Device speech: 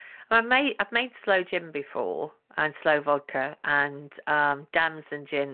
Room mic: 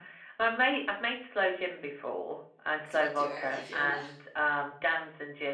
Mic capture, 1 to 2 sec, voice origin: echo only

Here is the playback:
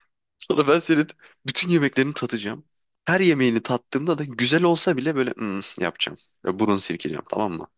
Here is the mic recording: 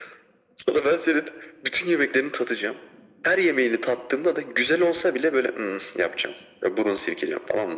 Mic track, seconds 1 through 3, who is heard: echo only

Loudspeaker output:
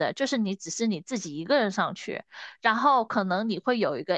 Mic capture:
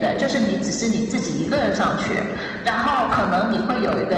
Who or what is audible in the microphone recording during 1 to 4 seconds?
echo only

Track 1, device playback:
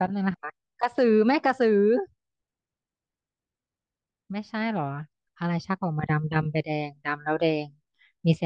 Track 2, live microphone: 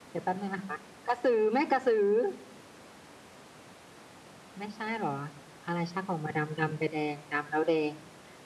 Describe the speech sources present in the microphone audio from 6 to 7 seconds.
echo only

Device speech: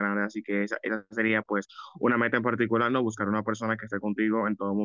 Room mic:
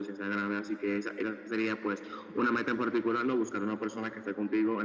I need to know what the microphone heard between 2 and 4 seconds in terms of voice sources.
echo only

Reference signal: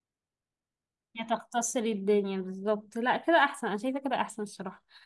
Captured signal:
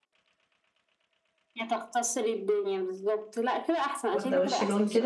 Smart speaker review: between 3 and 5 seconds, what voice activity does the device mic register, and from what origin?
both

